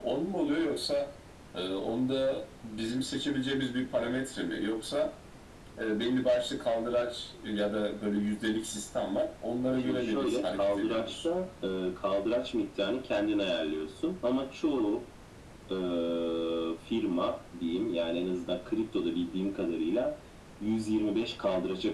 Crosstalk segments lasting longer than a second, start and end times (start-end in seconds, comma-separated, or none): 9.8-11.1